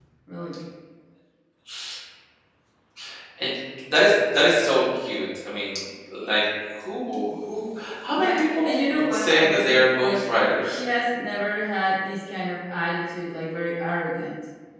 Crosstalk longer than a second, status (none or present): present